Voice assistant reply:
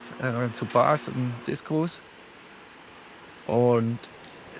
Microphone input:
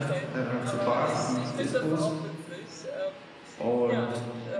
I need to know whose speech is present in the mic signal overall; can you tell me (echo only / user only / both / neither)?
both